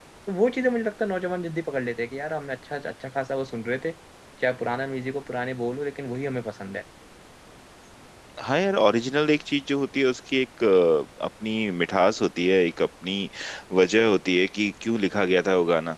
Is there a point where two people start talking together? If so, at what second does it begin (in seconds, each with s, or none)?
none